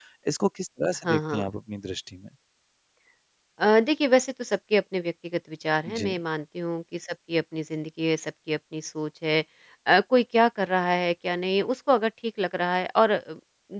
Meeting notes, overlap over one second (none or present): none